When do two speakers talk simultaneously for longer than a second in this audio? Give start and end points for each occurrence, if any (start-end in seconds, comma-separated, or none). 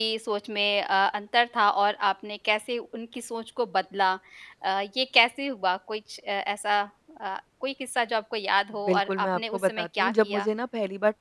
8.9-10.5